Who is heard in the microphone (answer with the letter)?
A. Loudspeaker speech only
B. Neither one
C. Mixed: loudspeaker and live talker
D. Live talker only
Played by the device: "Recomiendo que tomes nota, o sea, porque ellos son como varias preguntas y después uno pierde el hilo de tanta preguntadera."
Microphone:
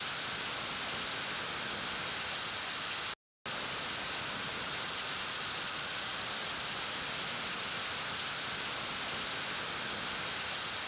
B